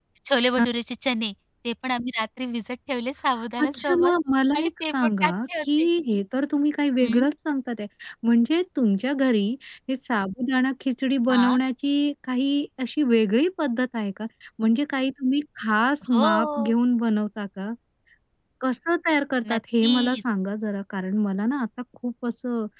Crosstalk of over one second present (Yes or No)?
Yes